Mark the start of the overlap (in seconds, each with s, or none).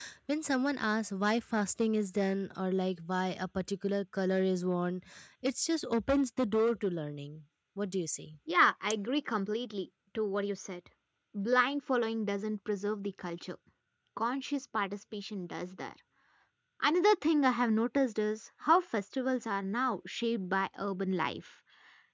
none